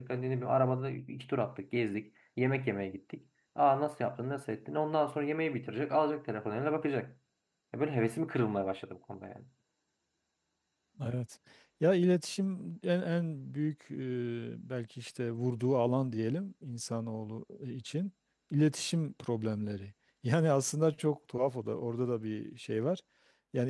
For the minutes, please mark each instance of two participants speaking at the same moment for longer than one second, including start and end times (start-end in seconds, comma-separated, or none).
none